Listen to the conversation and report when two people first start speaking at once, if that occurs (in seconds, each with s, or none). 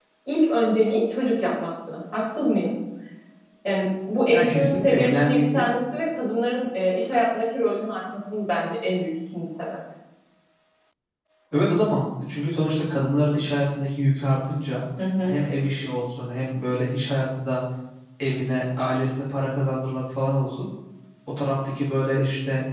4.3 s